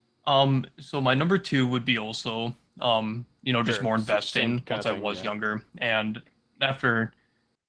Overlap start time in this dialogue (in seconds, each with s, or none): 3.6 s